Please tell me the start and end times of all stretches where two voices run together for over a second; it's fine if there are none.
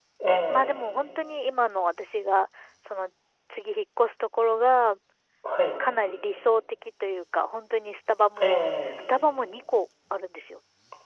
none

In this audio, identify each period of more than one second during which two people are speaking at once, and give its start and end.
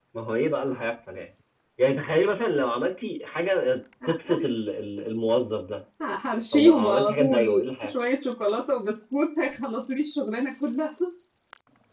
6.5-7.9

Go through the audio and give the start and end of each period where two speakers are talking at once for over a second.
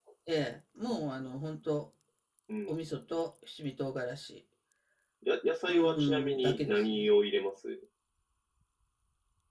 5.7-7.1

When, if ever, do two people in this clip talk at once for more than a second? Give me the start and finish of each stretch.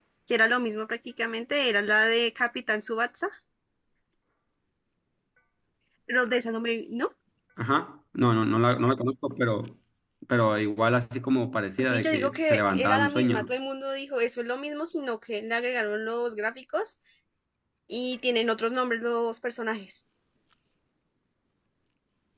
11.8-13.5

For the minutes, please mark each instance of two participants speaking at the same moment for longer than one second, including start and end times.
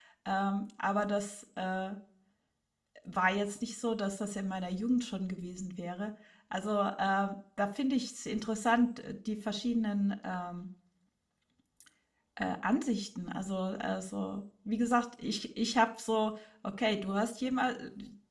none

